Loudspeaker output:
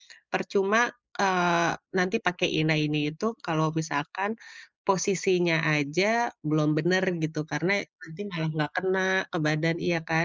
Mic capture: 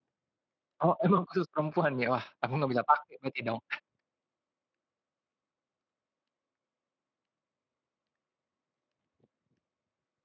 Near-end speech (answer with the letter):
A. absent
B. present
B